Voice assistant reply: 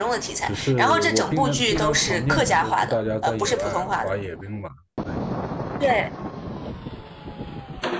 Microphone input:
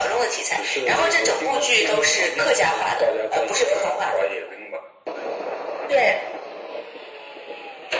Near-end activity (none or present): none